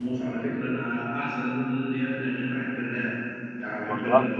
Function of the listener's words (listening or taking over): listening